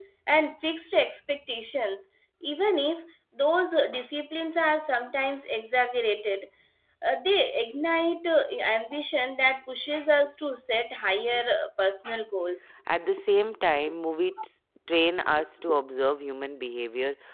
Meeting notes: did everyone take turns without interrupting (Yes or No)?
Yes